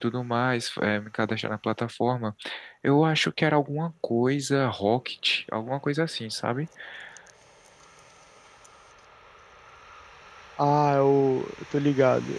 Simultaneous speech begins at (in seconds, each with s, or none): none